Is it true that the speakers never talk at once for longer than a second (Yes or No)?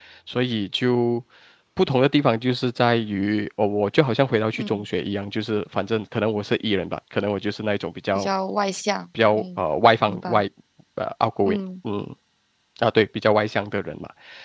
Yes